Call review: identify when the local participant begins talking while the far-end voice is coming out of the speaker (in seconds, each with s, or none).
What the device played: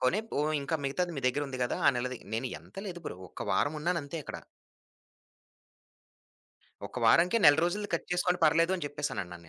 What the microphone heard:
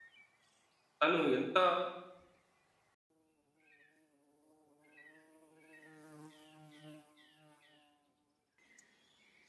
1.0 s